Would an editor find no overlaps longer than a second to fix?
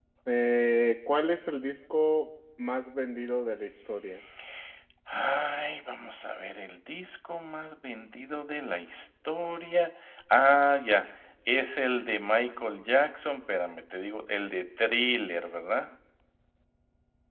Yes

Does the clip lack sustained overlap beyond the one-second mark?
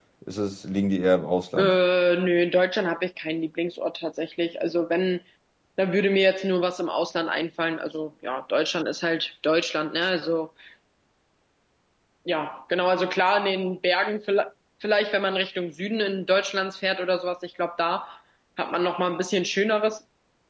Yes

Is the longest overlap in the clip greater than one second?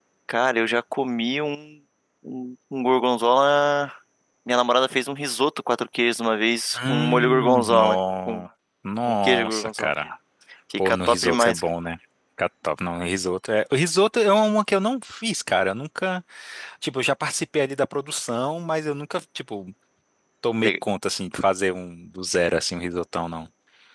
Yes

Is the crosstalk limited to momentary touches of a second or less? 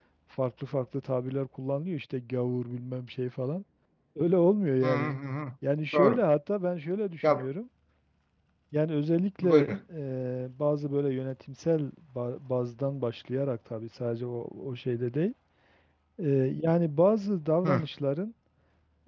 Yes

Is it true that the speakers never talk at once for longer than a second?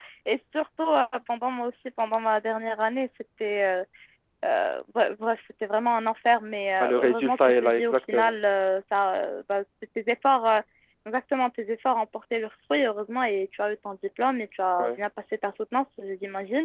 No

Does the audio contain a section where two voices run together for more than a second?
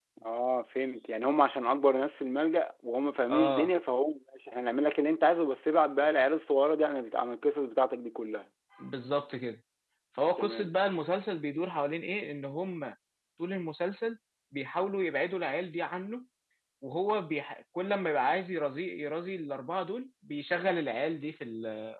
No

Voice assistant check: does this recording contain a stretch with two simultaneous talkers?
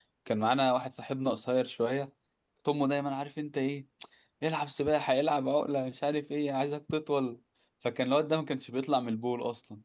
No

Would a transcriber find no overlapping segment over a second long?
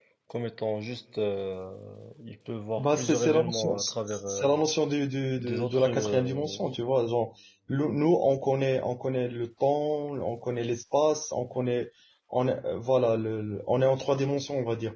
No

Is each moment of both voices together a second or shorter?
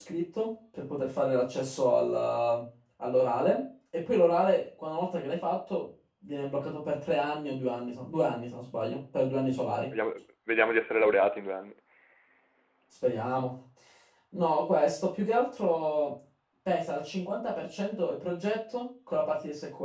Yes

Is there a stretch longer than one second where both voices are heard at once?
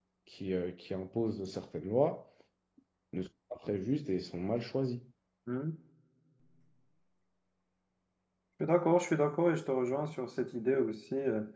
No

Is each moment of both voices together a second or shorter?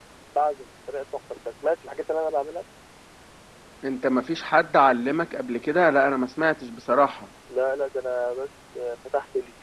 Yes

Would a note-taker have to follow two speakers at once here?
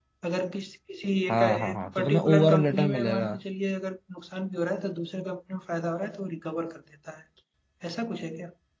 Yes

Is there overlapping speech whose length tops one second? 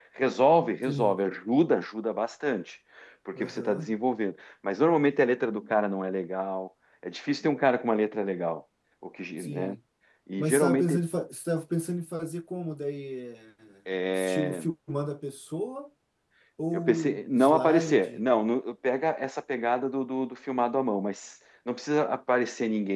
Yes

